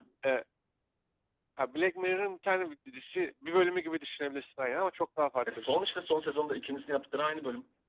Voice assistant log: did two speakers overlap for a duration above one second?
No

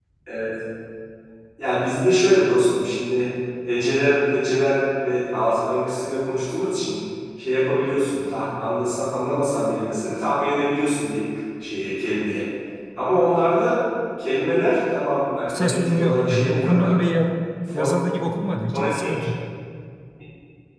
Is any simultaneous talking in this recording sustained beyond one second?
Yes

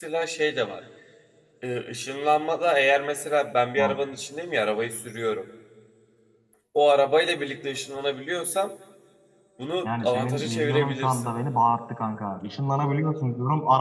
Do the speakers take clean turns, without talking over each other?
No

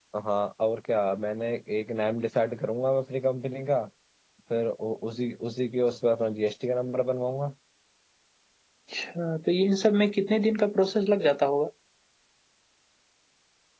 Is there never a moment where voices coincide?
Yes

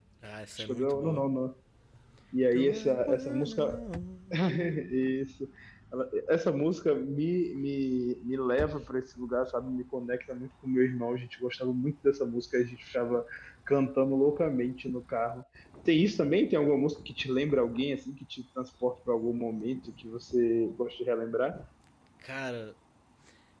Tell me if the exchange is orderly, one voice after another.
No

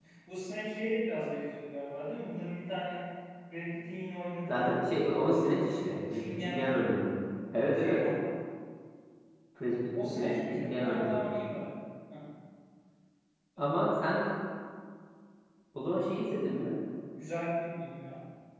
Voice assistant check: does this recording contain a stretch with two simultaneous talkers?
Yes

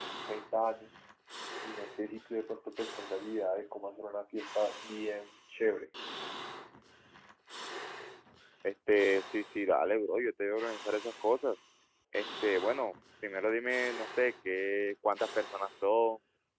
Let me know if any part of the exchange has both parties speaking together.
No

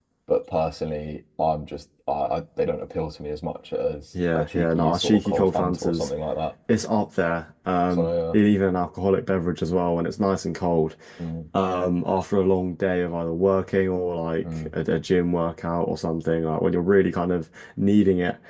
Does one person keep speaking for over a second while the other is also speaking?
Yes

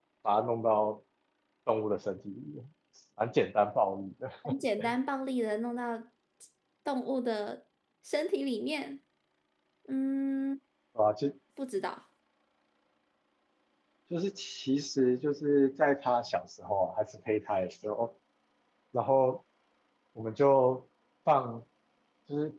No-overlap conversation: Yes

